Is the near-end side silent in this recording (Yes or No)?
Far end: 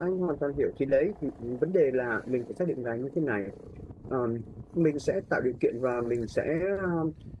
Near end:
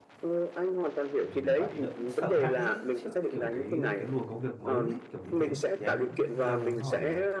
No